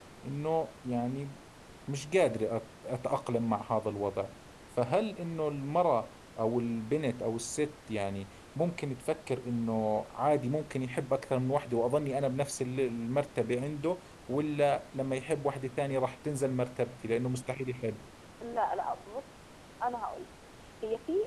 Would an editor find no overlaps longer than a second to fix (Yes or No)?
Yes